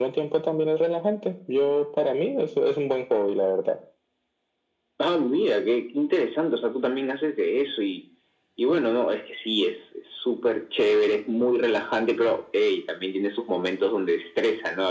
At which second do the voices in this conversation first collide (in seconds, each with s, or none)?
none